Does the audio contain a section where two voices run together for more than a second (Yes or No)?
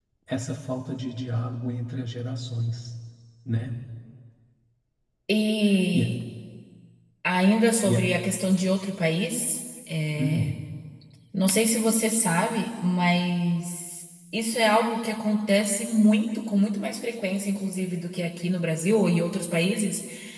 No